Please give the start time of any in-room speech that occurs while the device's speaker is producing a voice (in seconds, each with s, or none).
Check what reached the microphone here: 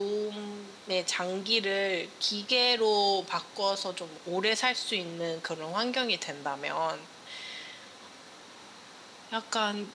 none